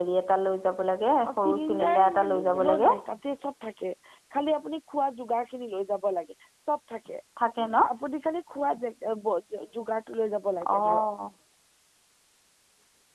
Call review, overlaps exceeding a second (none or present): present